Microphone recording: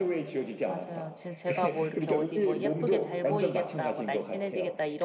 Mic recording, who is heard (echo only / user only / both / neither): both